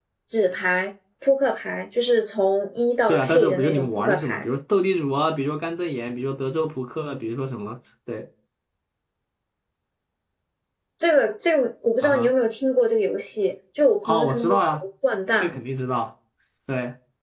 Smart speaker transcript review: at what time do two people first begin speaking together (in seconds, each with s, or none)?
3.1 s